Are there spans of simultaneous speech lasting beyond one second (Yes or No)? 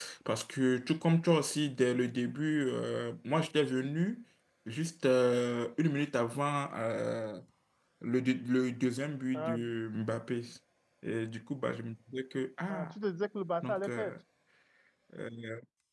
No